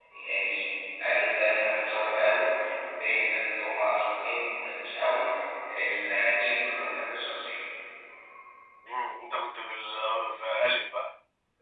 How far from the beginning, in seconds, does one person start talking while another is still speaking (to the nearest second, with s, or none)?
none